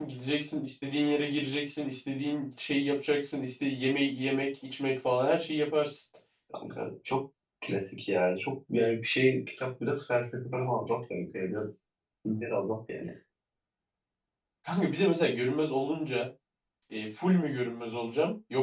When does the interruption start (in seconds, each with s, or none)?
none